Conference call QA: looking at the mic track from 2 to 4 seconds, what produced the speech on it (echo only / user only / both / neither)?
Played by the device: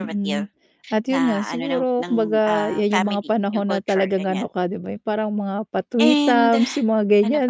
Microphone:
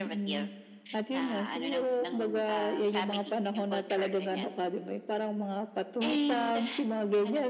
echo only